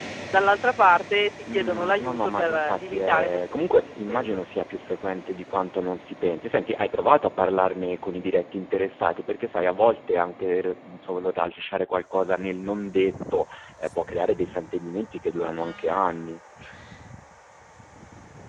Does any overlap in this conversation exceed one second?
Yes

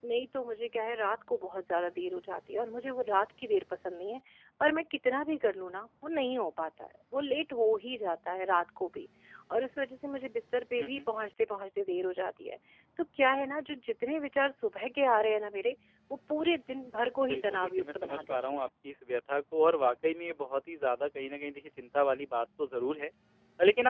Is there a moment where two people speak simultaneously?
Yes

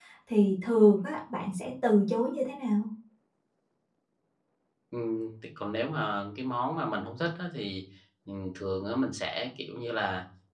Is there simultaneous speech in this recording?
No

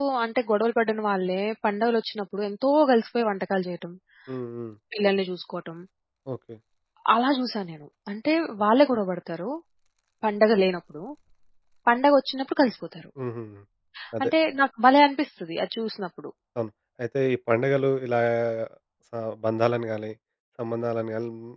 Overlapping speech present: No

